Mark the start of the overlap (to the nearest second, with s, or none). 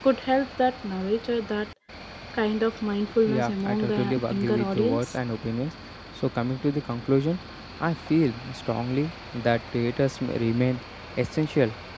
3 s